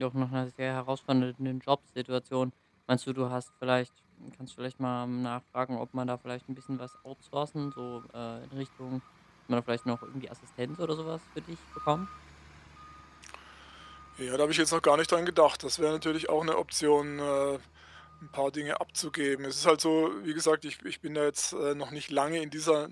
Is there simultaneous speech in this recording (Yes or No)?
No